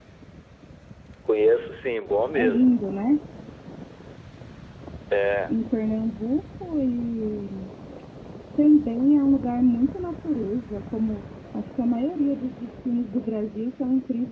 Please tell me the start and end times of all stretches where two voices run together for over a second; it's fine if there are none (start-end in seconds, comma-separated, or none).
none